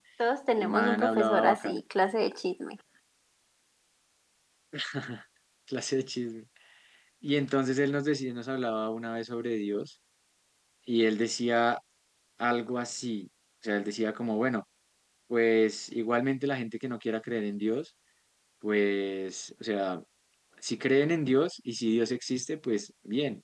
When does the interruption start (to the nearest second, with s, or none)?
1 s